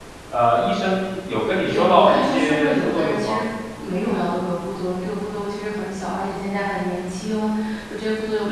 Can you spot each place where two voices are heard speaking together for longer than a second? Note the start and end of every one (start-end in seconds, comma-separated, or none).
1.6-3.4